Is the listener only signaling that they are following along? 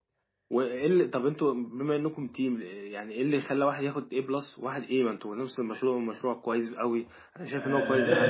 No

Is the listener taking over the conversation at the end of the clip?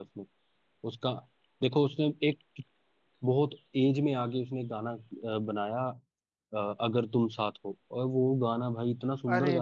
Yes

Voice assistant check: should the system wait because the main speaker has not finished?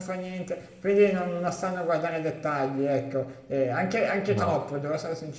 Yes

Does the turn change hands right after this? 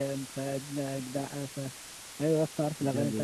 No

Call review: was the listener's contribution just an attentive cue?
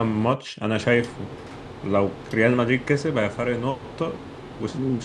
Yes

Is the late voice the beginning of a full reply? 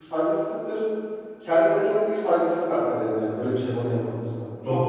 Yes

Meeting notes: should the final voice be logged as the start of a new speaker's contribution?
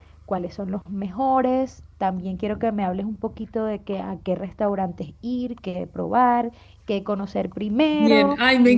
Yes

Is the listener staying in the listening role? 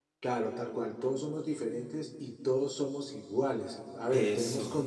Yes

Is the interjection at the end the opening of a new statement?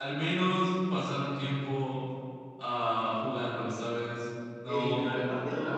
Yes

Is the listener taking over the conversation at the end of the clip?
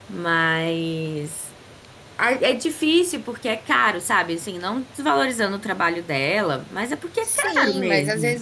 Yes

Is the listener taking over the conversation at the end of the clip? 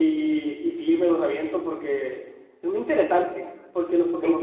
No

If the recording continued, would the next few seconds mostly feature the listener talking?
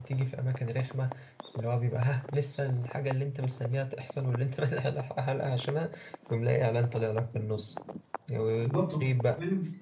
Yes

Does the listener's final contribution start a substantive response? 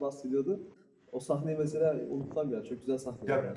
Yes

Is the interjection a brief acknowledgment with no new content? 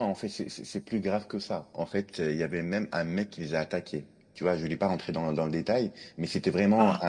Yes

